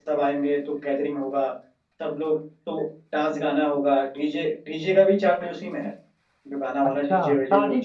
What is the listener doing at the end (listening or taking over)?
taking over